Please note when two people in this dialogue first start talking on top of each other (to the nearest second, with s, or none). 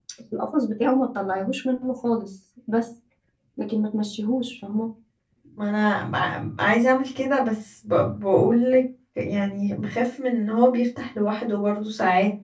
none